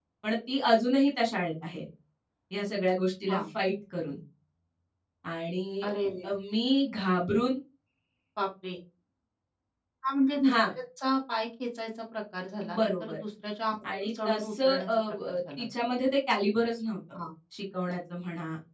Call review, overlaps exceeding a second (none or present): present